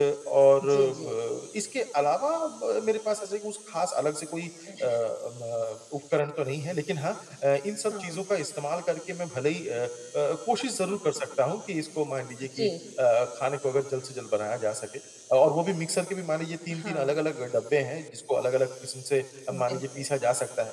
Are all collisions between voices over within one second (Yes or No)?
Yes